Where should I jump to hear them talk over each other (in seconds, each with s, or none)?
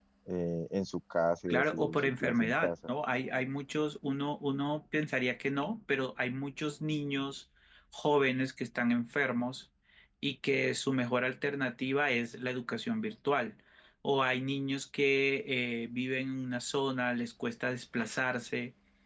1.5 s